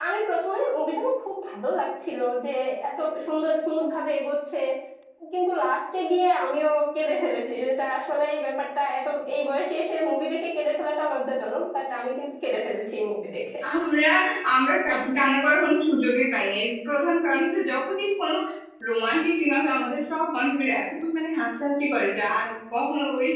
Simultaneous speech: No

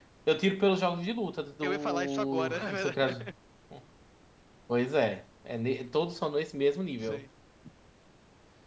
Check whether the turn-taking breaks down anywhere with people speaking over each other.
Yes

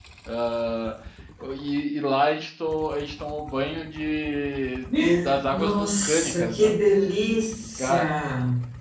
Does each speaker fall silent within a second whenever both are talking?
No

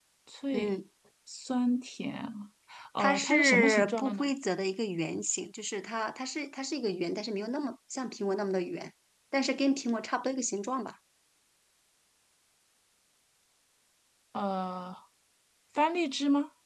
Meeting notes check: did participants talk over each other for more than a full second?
Yes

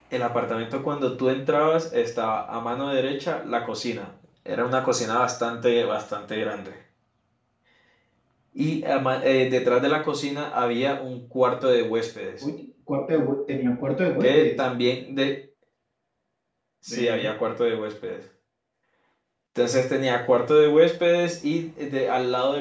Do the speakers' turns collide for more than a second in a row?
No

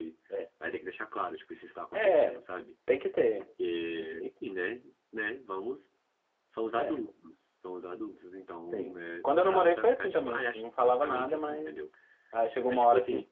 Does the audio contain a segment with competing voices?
Yes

